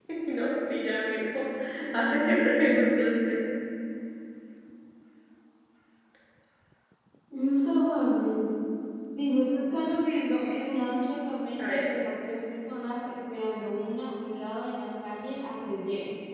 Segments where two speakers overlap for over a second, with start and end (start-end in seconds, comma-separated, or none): 1.9-3.4